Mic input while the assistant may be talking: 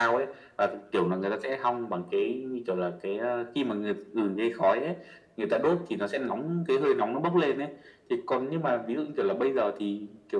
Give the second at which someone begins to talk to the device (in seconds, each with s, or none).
none